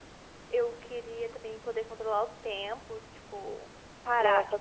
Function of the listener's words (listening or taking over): taking over